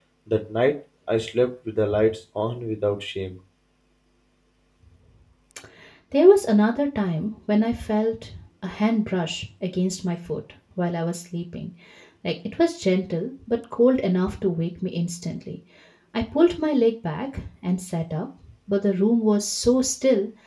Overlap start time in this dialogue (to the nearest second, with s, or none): none